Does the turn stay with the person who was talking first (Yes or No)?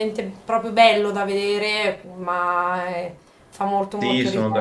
No